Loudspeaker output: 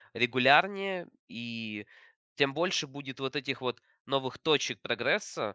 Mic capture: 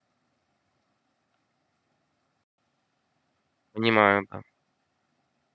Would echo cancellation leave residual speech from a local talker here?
Yes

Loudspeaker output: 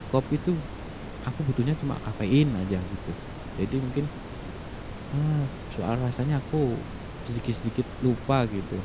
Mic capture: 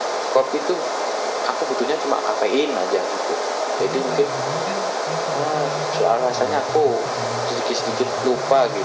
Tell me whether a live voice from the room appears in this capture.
Yes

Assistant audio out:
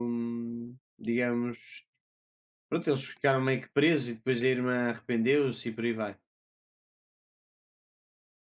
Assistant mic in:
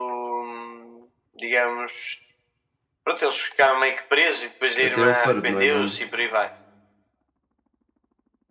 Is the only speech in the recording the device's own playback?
No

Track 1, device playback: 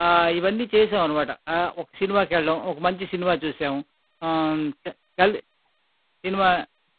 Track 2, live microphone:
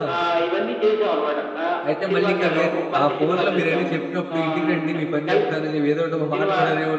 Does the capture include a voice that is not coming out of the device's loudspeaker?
Yes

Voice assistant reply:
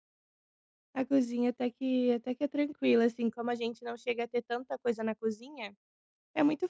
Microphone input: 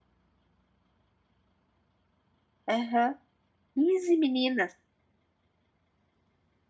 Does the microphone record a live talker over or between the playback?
Yes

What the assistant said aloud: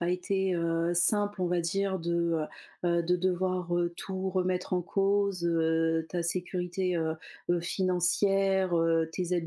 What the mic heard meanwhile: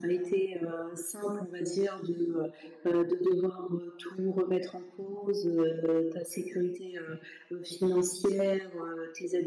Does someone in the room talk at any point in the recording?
No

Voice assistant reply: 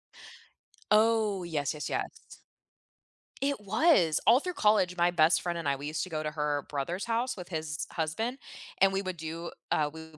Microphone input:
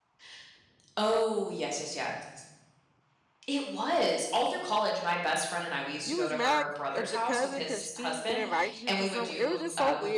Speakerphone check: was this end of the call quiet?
No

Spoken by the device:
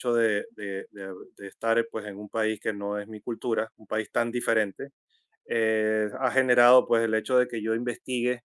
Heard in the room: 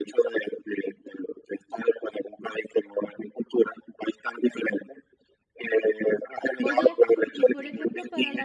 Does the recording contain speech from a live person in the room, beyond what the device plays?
Yes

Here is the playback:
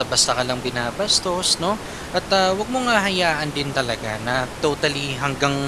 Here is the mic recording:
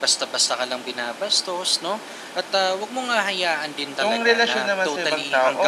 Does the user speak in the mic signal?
Yes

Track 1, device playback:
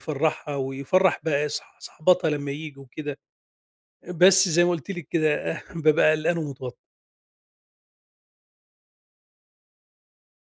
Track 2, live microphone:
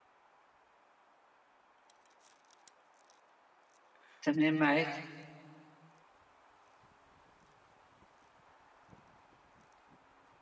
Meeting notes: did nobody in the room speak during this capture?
No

